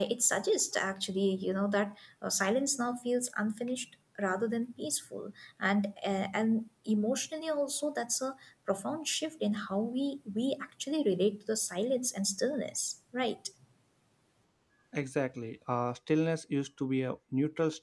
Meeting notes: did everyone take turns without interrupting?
Yes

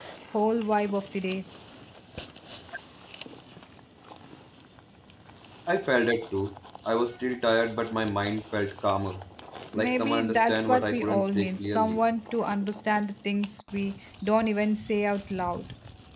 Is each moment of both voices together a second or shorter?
No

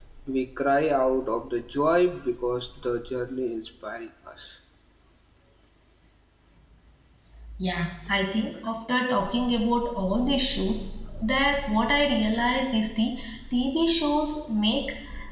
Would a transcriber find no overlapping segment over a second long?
Yes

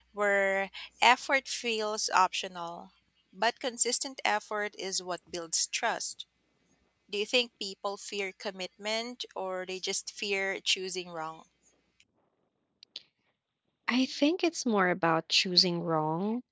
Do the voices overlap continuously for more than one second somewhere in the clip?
No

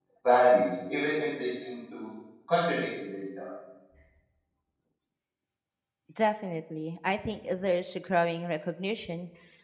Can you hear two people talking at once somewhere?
No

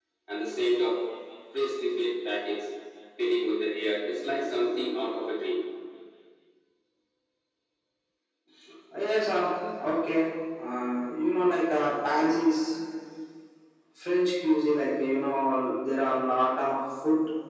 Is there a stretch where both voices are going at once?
No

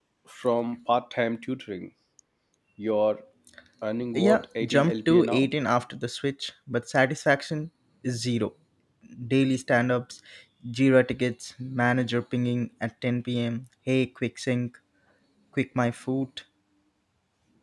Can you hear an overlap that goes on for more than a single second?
Yes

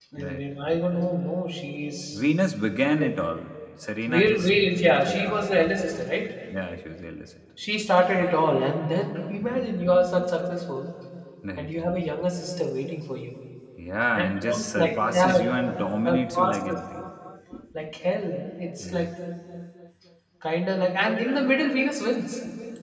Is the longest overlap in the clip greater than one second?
Yes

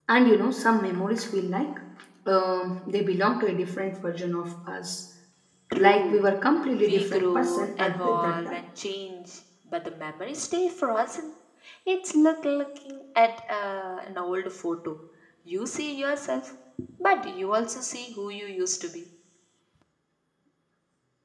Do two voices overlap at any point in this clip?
Yes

